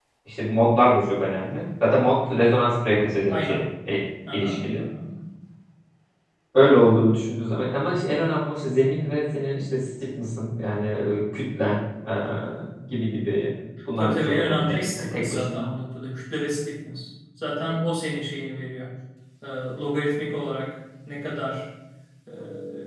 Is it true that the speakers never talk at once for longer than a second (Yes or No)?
No